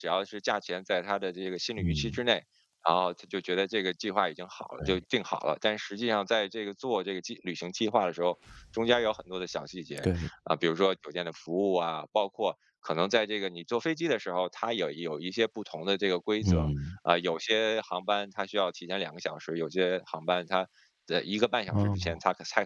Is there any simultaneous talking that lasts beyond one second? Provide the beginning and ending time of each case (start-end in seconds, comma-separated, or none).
none